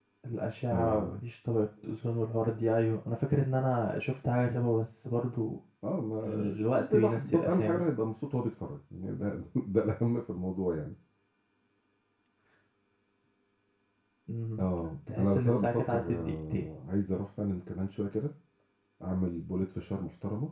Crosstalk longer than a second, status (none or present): present